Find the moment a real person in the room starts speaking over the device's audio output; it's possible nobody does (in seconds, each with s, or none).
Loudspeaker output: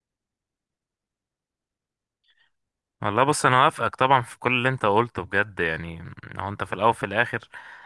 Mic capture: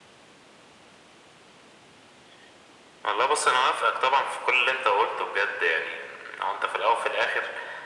none